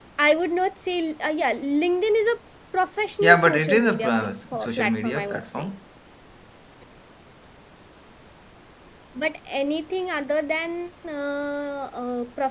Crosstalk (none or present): present